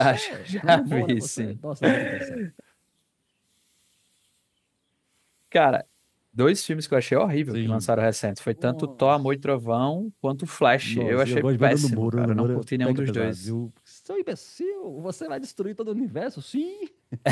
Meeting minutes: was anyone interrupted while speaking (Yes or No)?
Yes